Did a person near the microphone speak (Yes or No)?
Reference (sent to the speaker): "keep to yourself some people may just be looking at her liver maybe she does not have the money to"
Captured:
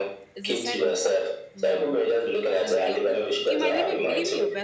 Yes